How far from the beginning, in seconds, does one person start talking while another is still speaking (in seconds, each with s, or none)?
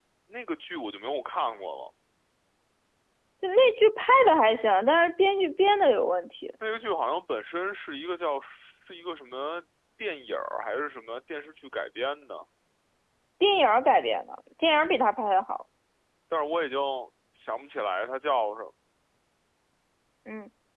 none